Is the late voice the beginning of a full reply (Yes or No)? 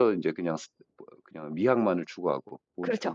Yes